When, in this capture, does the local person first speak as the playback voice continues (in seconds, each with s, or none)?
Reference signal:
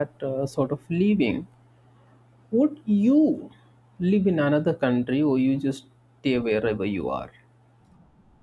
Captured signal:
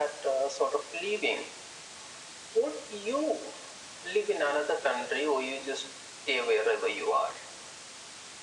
none